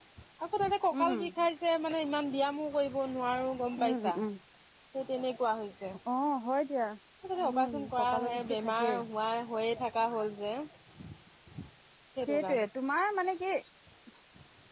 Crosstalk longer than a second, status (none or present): present